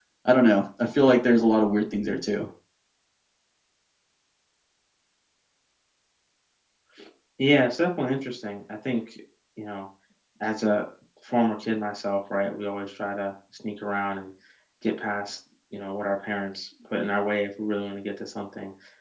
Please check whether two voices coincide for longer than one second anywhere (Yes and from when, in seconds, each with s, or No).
No